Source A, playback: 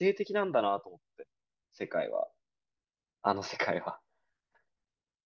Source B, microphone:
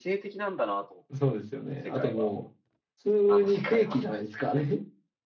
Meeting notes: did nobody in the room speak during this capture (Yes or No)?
No